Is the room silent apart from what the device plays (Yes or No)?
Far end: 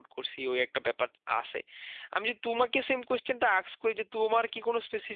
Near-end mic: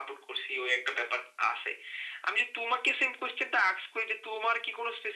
Yes